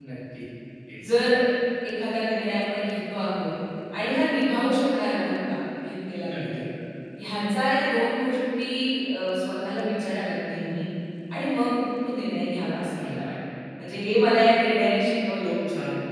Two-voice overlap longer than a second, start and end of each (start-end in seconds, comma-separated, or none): none